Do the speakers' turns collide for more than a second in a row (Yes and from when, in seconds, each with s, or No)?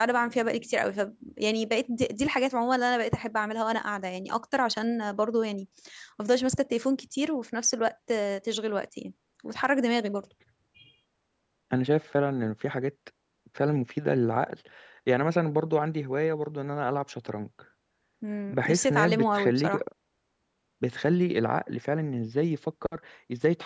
Yes, from 18.5 s